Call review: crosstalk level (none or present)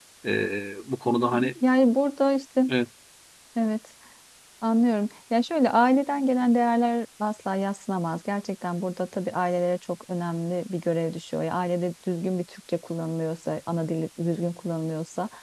none